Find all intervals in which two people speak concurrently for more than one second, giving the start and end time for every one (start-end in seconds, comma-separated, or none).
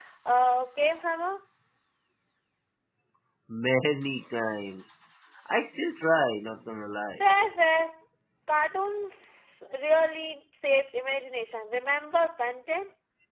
none